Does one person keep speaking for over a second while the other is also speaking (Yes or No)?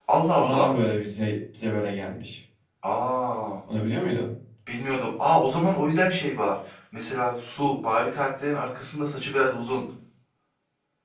No